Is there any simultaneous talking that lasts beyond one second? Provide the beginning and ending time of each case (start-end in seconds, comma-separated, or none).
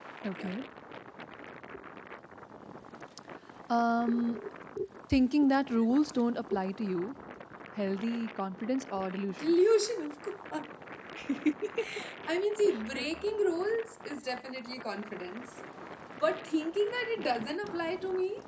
none